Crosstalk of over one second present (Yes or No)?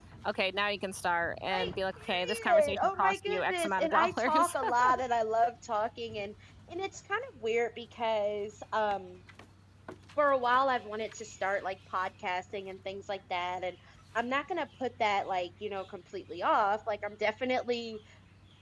Yes